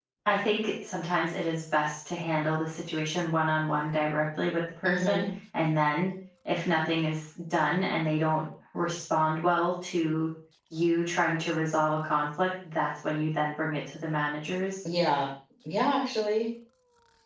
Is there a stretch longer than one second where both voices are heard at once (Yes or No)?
No